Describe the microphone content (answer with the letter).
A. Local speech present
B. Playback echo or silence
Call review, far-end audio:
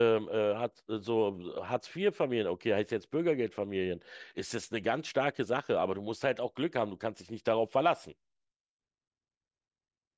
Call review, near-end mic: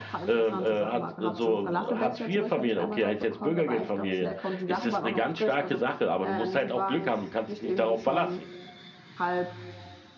A